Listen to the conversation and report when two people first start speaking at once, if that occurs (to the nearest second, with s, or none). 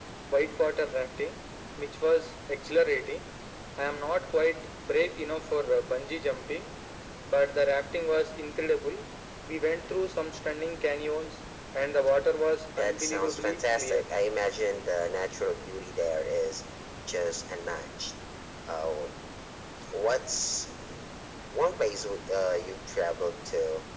13 s